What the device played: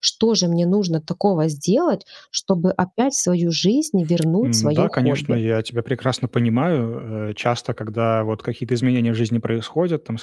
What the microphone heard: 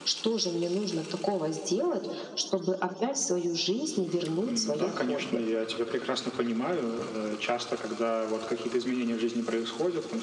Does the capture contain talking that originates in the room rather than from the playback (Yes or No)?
No